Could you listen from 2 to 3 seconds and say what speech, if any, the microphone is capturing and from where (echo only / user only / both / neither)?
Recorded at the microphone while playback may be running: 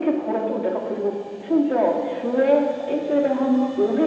echo only